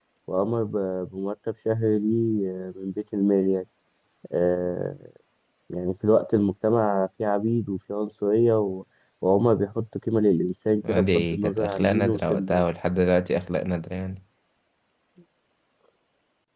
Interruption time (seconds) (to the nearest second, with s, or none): 11 s